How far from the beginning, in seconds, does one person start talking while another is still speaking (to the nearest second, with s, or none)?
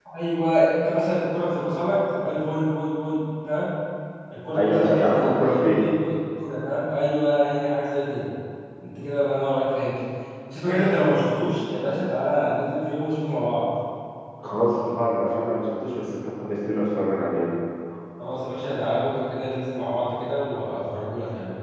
5 s